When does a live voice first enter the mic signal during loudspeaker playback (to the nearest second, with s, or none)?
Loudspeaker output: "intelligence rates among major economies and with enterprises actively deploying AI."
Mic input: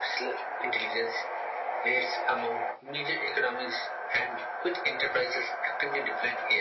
none